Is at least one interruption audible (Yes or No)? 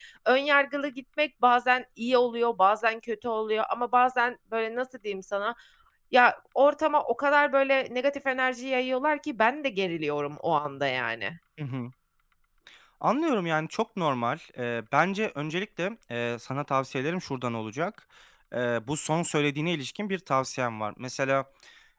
No